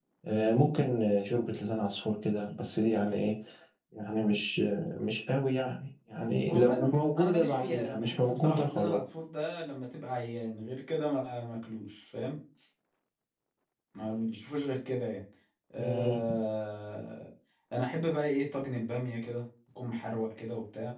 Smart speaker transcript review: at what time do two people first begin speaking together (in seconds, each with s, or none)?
6.5 s